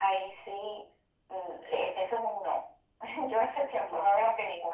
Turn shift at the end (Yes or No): No